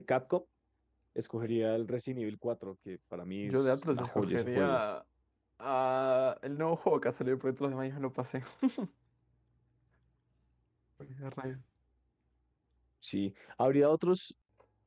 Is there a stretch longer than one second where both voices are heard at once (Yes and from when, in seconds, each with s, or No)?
Yes, from 3.4 s